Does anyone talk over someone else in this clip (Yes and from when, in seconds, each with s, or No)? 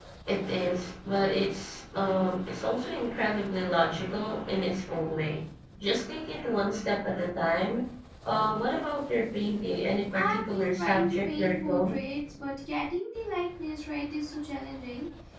Yes, from 10.1 s